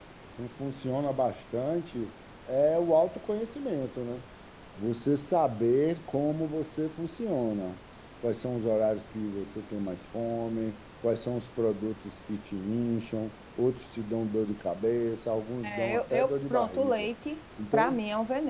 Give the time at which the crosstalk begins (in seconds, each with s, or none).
15.6 s